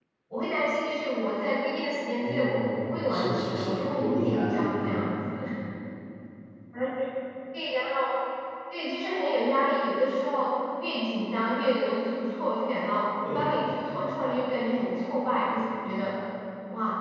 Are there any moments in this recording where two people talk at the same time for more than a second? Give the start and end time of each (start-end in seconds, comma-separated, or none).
2.2-5.0